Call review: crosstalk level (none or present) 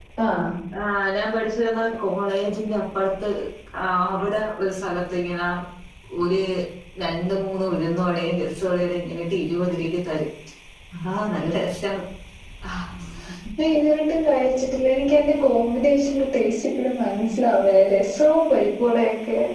none